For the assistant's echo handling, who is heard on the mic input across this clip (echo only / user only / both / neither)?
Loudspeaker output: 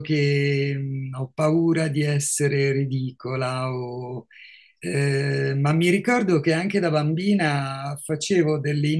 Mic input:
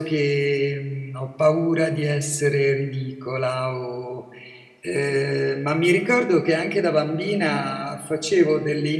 echo only